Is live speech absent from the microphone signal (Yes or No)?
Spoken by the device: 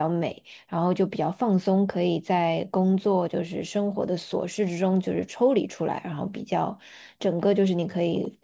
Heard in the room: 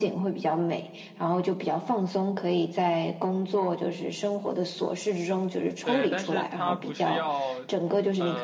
No